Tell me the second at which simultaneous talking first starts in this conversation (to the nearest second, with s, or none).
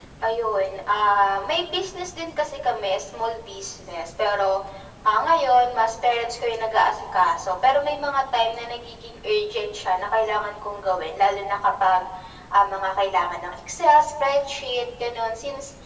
none